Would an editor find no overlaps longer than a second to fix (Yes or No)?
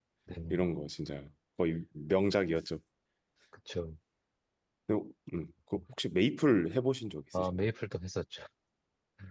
Yes